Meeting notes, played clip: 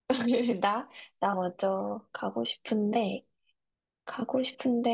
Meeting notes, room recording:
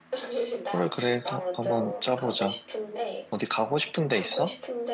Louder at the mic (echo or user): user